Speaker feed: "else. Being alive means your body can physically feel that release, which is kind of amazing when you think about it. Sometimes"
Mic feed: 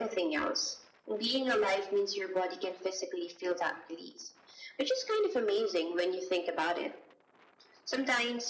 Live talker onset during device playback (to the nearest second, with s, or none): none